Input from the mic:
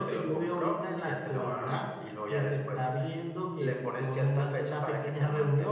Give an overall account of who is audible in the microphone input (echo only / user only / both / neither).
echo only